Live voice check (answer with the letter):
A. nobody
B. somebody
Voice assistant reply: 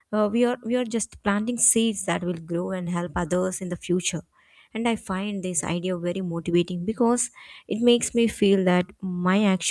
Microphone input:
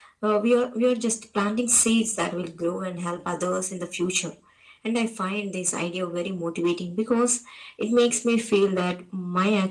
A